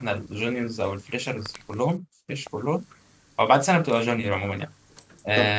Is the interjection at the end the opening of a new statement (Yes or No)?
No